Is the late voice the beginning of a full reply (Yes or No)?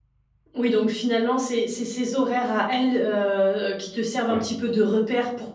No